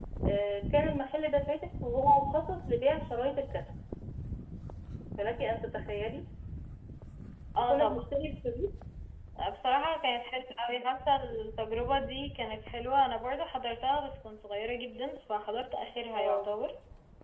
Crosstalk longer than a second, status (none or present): none